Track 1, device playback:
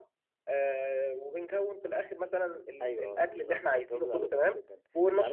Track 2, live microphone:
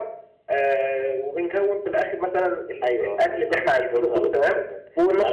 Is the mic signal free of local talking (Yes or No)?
Yes